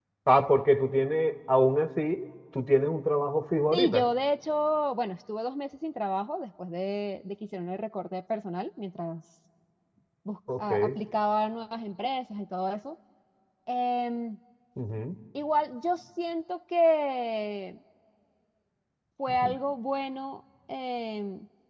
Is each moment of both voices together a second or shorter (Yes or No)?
Yes